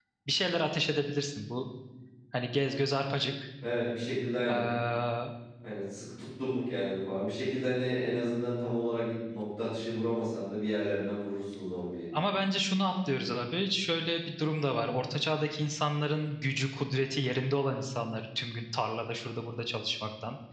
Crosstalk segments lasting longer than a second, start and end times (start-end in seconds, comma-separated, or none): none